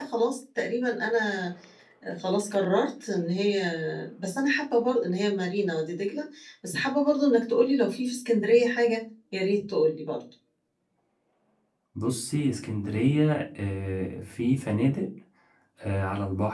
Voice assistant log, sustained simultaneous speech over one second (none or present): none